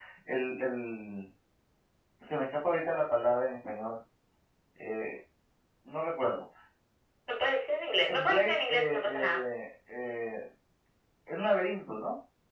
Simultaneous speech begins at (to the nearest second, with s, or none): 8 s